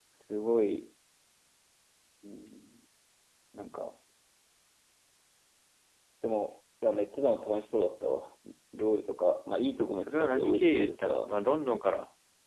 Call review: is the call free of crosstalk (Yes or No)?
No